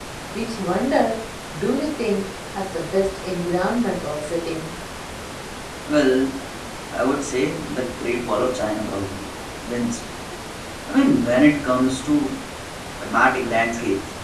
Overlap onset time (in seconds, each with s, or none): none